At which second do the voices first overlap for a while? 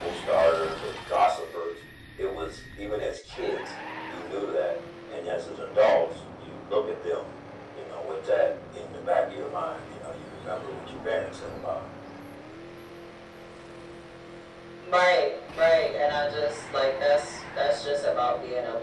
none

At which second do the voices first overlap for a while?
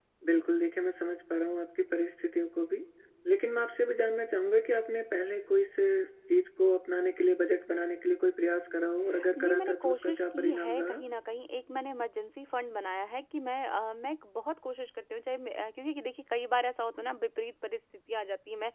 9.2 s

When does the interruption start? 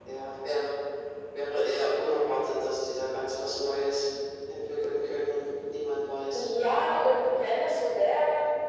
none

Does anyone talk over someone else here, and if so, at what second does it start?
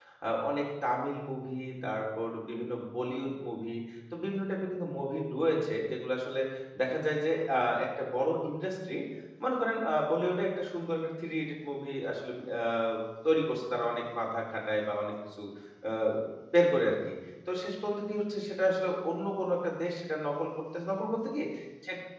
none

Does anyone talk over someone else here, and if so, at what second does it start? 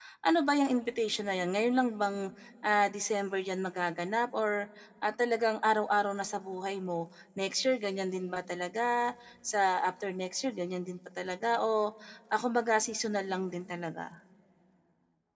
none

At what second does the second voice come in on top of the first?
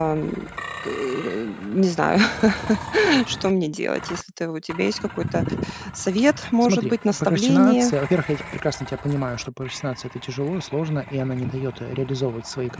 6.6 s

